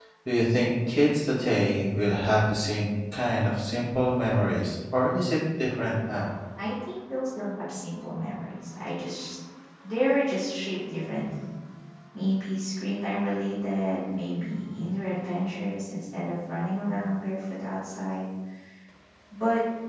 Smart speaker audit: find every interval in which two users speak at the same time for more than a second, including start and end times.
none

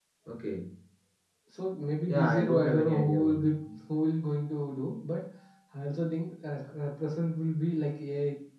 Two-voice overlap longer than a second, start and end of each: 2.1-3.4

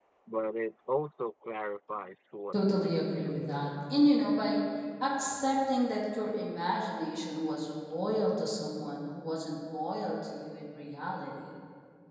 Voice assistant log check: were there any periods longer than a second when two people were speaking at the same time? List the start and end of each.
2.5-3.8

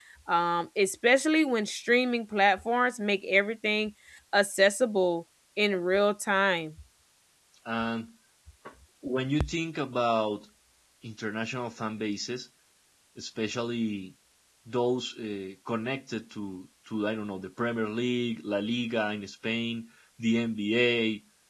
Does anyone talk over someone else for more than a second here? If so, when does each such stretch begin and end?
none

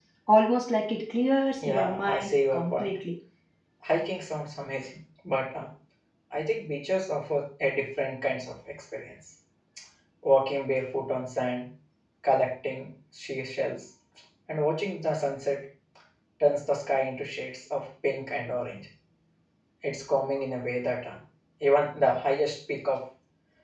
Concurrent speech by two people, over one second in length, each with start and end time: 1.6-3.0

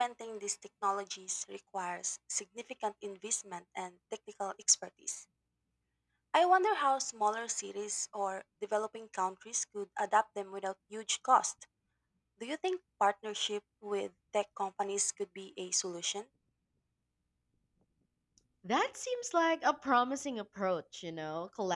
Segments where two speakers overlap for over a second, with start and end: none

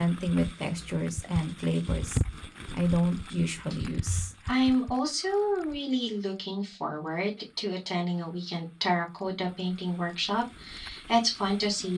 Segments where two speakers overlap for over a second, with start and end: none

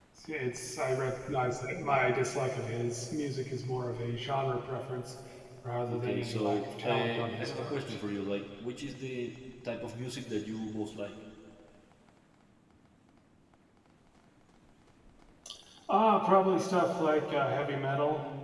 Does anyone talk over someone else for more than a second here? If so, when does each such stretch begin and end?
5.9-8.0

